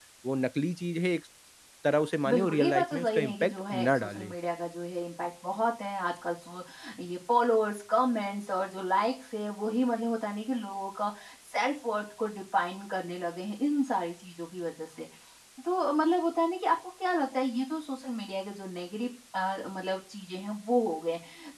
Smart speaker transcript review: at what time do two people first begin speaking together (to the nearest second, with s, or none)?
2 s